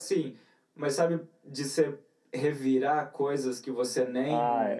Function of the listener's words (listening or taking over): taking over